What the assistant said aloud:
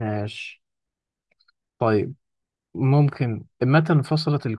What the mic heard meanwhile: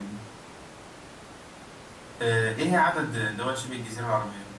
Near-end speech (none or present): present